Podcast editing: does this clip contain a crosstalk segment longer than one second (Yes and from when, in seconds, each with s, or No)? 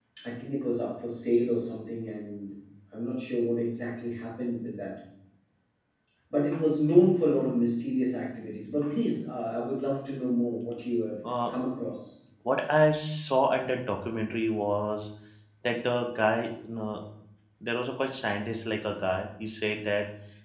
No